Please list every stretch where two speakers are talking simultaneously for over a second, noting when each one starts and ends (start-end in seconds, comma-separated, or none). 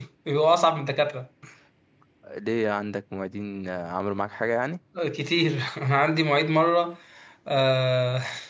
none